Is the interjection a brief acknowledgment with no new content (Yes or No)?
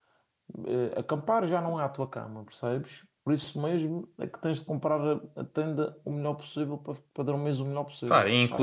No